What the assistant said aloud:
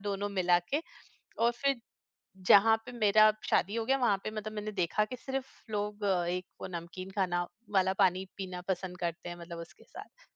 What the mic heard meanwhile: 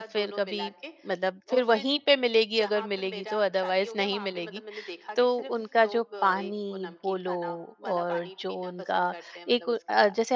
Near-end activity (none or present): present